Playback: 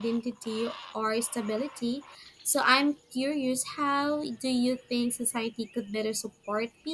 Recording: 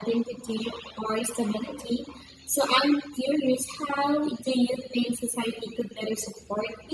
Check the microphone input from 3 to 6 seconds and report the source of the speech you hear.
echo only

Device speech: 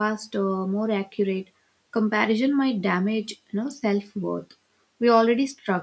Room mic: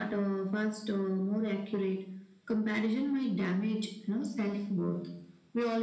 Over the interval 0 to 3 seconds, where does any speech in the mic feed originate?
echo only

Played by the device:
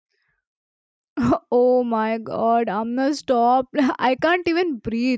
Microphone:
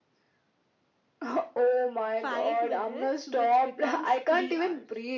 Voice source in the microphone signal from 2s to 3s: both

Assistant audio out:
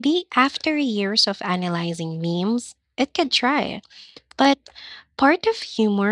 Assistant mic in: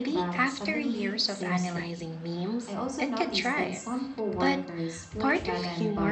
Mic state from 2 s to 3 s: both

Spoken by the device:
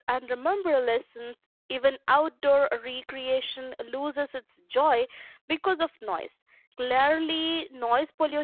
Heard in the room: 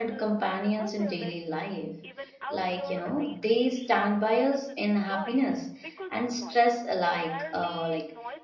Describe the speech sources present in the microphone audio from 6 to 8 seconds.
both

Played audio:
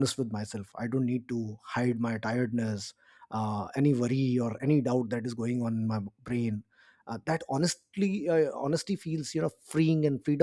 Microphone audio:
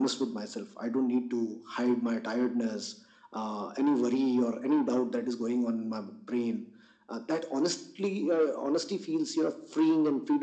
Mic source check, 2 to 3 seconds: echo only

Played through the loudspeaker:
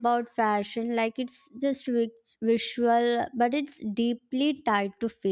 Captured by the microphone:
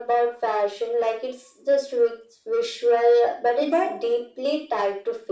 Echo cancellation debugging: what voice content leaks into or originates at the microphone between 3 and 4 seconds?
both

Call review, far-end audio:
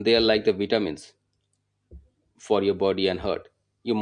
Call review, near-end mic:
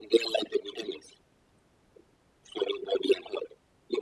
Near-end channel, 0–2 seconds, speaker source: echo only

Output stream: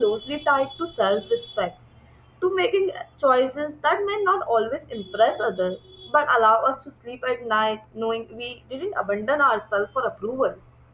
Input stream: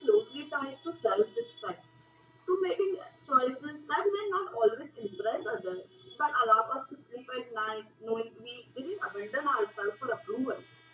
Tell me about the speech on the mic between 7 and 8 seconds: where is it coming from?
echo only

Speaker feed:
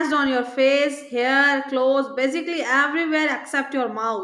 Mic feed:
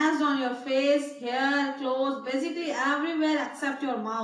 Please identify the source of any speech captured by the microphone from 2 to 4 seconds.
echo only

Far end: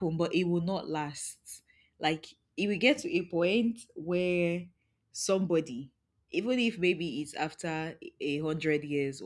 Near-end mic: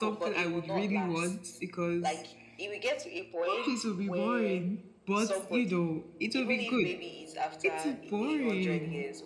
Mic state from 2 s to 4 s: both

